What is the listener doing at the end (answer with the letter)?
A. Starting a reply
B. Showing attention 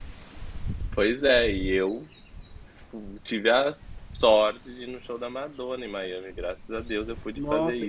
A